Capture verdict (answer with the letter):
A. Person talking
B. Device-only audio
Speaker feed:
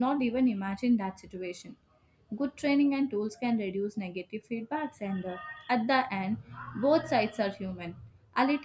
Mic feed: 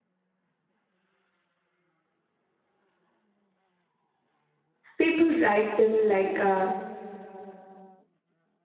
A